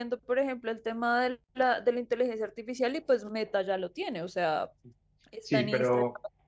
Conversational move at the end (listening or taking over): taking over